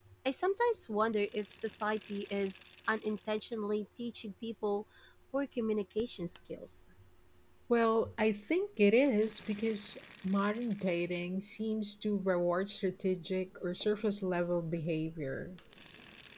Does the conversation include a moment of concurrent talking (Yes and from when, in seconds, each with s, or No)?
No